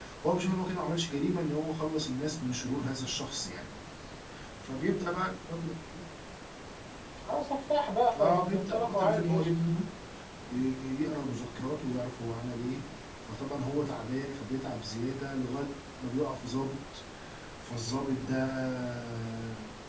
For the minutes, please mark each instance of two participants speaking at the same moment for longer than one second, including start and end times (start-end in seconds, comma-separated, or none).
8.2-9.5